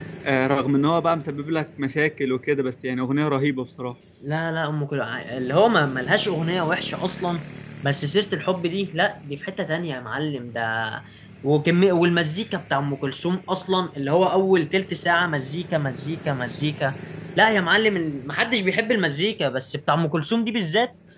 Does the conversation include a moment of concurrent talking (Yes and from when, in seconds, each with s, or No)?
No